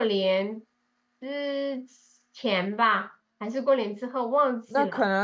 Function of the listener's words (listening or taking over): taking over